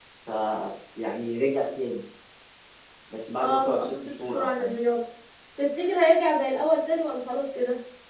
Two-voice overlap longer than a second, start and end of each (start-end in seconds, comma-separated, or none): 3.4-4.7